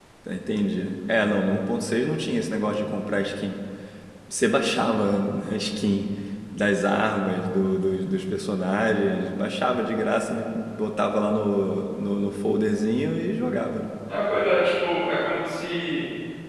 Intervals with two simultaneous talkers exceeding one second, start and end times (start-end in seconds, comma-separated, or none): none